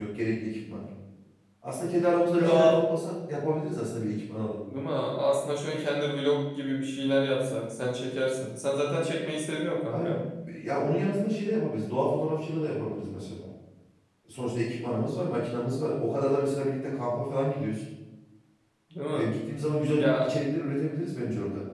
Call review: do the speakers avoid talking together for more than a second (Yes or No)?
Yes